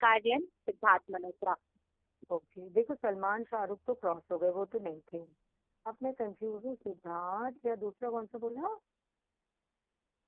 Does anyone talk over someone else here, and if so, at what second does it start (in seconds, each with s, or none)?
none